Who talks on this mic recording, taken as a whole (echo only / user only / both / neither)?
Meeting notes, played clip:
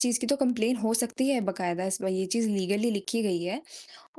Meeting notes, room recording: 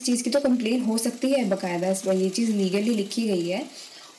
echo only